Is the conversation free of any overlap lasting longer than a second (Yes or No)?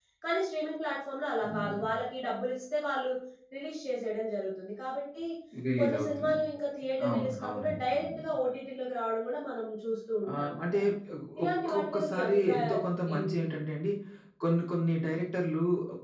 No